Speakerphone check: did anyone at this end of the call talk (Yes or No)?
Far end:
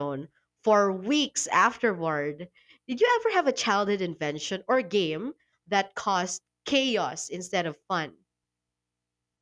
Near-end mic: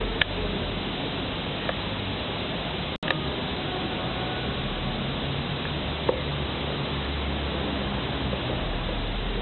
No